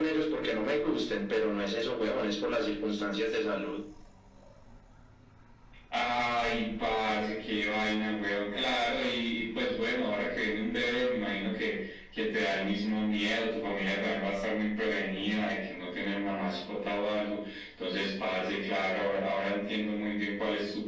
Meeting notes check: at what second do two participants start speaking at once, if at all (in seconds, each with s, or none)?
none